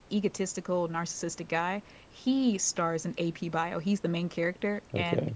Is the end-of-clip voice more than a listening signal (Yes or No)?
No